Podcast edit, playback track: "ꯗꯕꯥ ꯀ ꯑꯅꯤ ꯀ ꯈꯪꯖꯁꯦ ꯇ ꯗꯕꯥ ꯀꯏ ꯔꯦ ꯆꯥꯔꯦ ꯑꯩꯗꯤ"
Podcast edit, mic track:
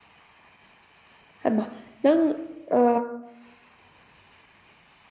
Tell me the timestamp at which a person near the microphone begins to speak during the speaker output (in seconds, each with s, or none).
1.5 s